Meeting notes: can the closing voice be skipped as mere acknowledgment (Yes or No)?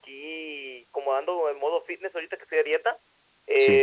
Yes